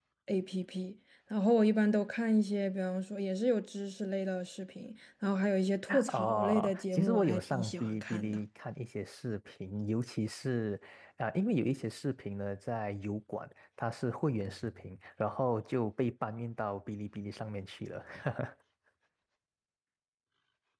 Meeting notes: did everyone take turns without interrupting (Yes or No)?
No